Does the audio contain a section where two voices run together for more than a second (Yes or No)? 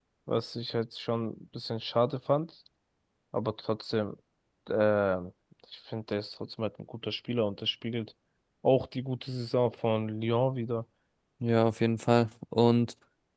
No